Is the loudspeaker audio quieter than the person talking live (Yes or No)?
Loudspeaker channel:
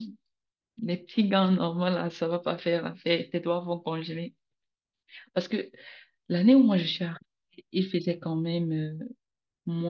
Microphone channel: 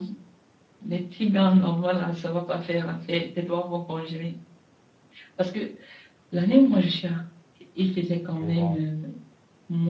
No